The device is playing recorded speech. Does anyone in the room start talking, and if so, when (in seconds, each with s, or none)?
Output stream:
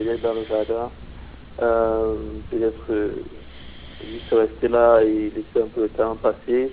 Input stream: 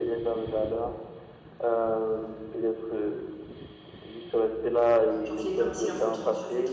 5.2 s